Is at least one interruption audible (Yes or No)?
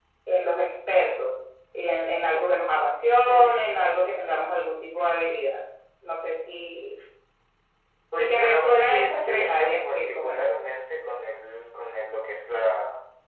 Yes